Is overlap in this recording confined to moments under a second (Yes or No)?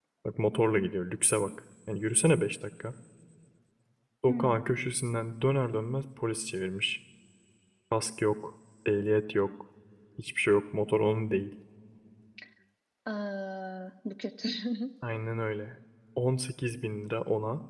Yes